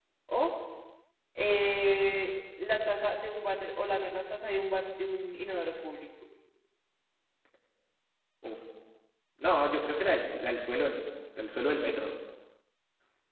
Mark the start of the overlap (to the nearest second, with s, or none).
none